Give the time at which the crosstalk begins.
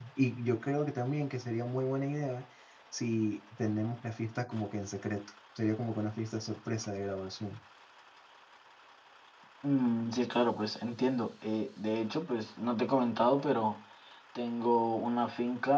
none

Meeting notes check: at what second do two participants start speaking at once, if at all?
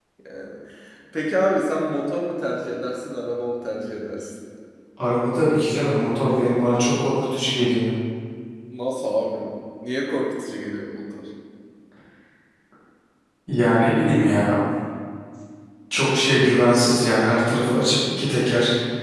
none

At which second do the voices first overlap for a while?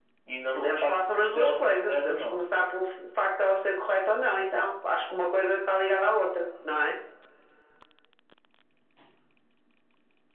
0.6 s

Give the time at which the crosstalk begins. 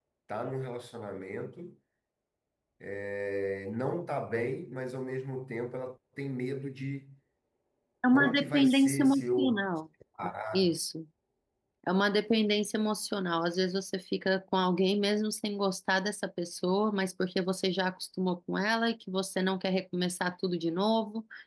8.1 s

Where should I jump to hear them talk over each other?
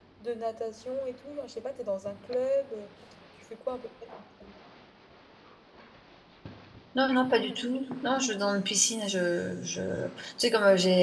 none

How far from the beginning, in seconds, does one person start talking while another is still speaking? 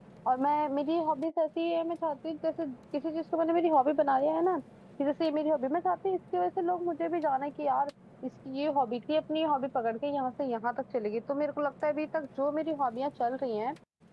none

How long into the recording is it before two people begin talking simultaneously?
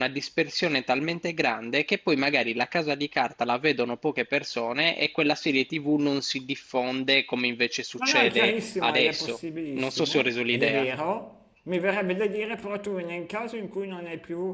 8.0 s

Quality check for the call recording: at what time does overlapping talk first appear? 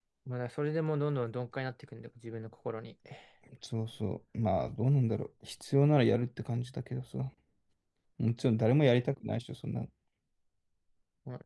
none

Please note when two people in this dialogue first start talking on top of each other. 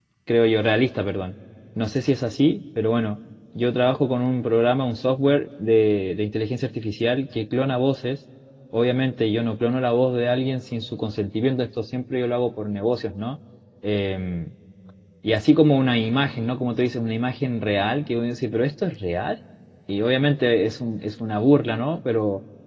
none

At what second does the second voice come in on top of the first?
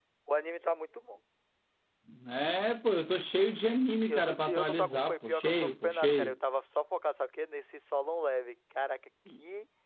4.1 s

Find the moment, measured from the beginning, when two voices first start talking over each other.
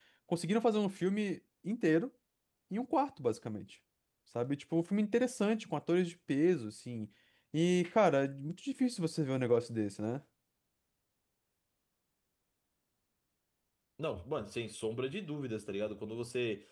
none

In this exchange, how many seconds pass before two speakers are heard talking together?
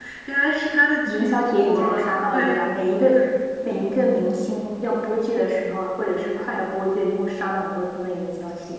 1.1 s

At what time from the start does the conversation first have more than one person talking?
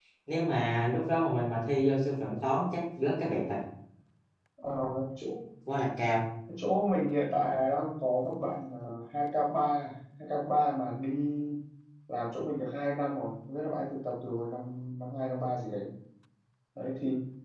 none

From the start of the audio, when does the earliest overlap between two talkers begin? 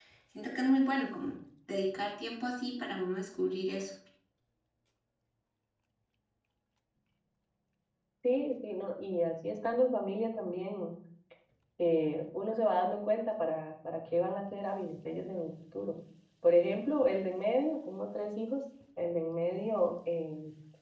none

